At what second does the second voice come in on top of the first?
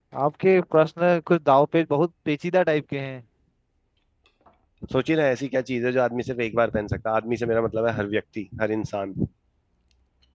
none

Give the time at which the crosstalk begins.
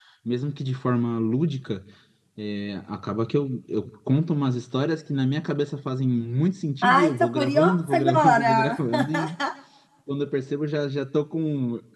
6.8 s

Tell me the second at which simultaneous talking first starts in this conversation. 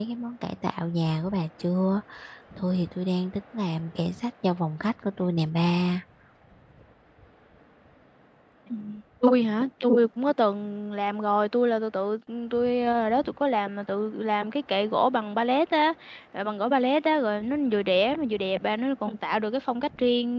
none

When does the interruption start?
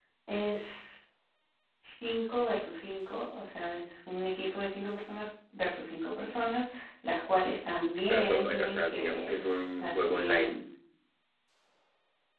8.1 s

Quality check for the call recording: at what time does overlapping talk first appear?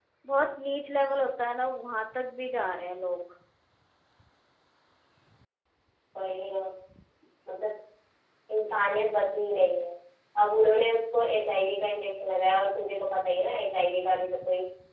none

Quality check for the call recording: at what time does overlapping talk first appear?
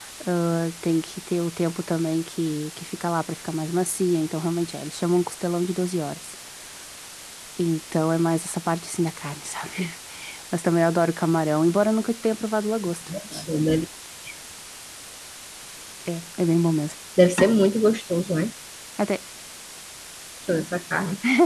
none

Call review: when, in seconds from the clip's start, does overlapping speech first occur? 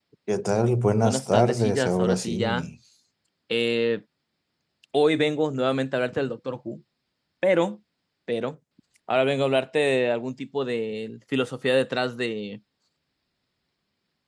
1.0 s

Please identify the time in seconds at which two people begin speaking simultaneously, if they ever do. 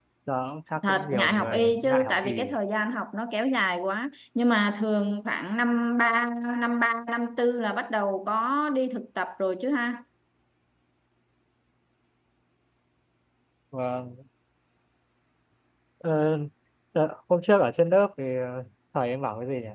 0.9 s

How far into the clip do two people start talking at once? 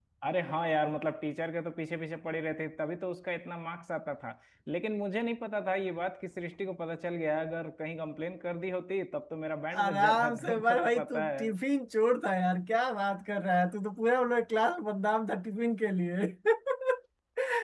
9.7 s

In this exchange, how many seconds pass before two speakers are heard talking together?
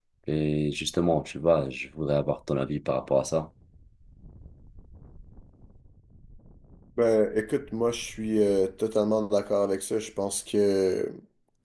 none

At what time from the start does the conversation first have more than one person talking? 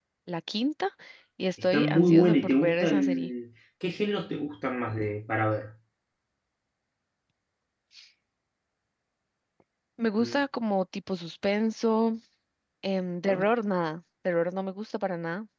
1.6 s

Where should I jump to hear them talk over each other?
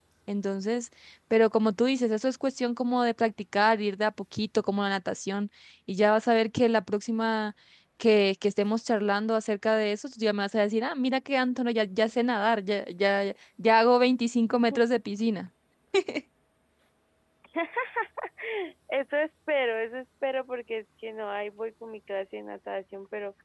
none

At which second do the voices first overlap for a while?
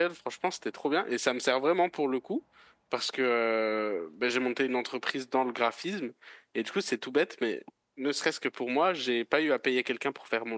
none

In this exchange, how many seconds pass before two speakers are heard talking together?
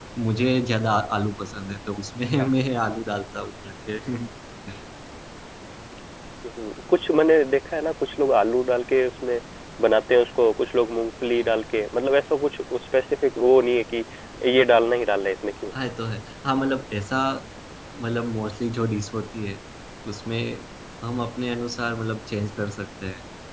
none

